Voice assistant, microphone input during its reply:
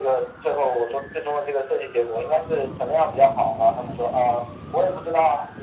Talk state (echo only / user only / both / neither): echo only